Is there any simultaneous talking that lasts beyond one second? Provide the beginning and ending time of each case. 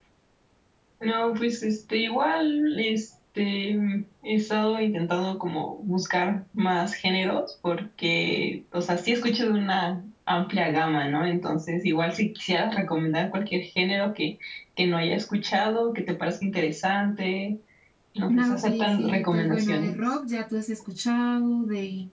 18.4-19.9

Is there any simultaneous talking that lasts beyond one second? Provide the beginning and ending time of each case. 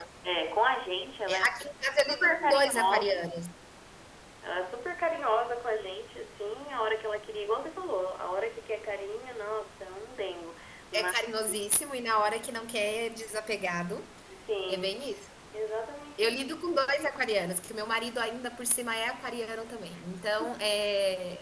1.3-3.2

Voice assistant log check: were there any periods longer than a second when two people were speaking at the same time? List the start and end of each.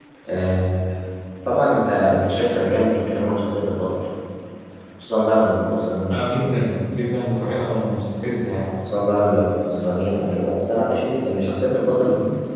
none

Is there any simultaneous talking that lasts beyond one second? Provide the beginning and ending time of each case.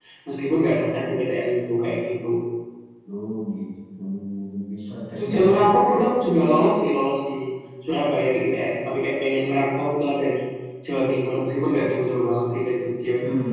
none

